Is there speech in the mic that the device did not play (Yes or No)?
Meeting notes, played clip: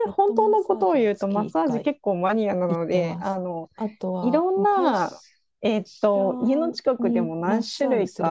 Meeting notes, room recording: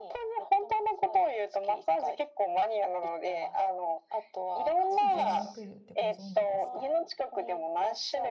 Yes